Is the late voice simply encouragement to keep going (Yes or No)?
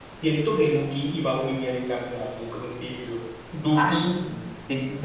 No